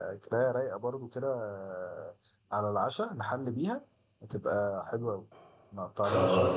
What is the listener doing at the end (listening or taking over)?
listening